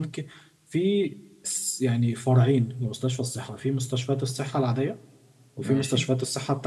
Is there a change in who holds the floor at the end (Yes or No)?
No